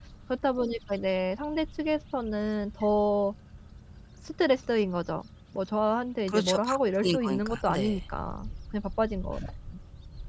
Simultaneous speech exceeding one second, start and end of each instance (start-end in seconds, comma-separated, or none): 6.3-8.0